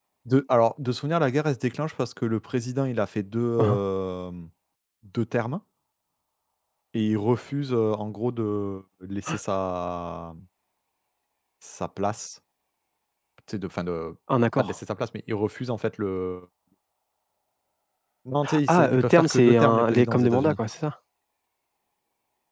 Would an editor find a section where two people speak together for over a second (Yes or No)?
Yes